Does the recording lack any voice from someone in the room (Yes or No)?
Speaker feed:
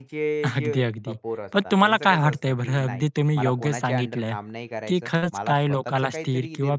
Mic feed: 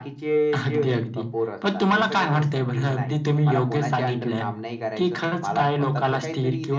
Yes